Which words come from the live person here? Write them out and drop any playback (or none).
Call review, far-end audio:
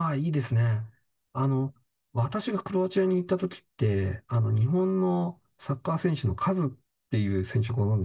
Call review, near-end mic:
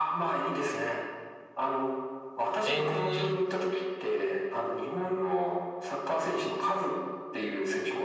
え